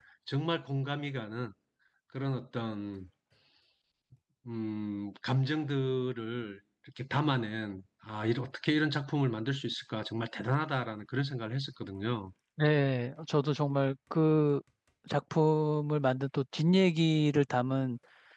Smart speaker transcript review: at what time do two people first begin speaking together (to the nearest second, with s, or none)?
none